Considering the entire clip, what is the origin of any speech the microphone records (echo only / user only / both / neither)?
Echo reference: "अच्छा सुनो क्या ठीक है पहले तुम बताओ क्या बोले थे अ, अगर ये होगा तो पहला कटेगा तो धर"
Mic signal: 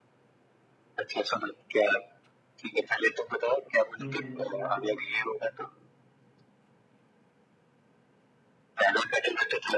both